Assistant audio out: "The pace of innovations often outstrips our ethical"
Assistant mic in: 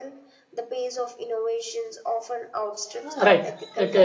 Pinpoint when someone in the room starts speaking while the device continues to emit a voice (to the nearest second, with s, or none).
3 s